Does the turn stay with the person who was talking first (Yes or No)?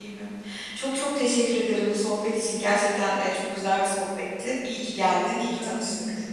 No